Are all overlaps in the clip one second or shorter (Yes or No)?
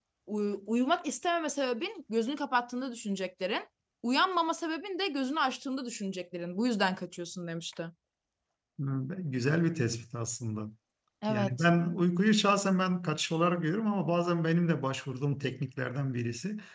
Yes